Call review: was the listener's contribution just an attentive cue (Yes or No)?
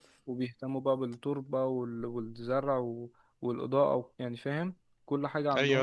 No